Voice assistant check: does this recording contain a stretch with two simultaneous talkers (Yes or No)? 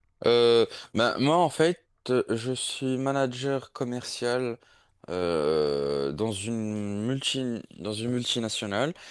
No